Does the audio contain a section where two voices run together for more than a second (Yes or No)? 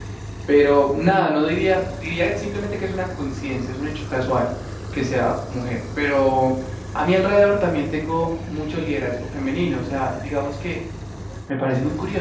No